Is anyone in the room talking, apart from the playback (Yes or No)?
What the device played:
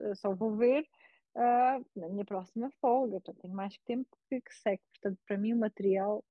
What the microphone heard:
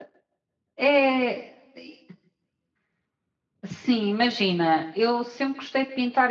Yes